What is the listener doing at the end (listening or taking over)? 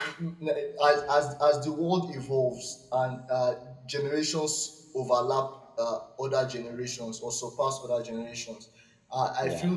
listening